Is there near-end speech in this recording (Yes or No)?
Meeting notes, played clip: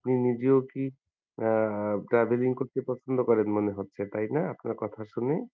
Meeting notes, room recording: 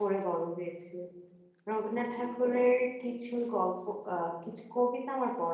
Yes